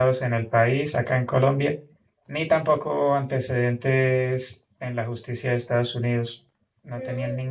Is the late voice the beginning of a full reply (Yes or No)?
No